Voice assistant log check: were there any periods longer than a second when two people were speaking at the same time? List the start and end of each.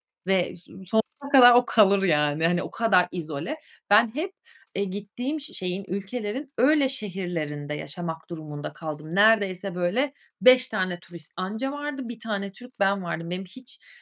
none

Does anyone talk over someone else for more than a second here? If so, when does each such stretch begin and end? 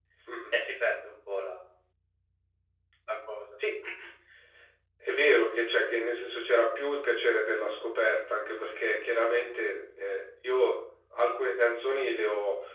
none

